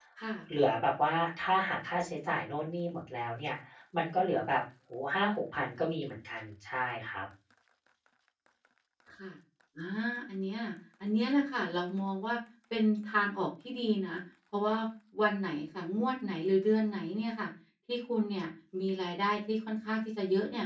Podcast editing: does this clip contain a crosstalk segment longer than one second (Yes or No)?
No